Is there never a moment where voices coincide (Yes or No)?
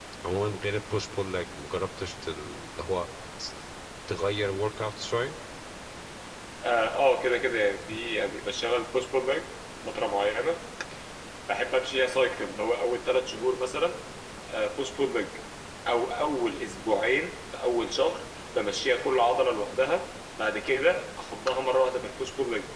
Yes